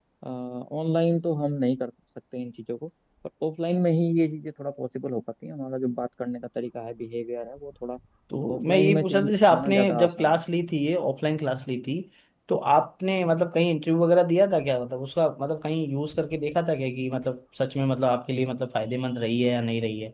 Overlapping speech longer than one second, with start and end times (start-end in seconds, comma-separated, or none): 8.6-10.4